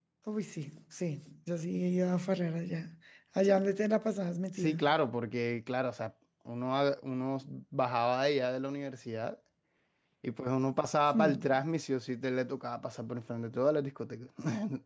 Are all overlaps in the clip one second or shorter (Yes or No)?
Yes